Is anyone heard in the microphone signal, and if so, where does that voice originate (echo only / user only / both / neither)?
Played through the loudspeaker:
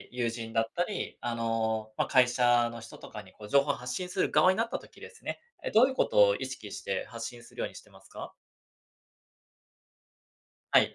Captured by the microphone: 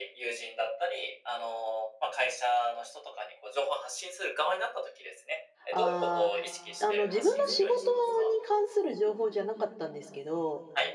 both